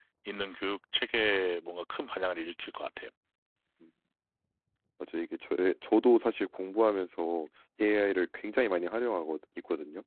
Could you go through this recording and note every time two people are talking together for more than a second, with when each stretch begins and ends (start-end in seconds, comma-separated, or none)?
none